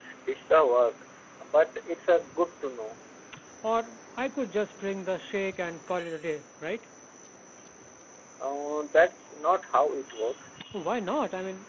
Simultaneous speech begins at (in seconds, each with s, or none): none